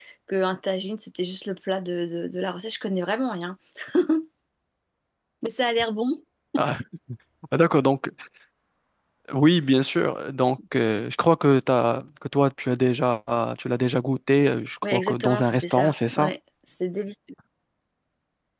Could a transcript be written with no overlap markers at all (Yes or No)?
No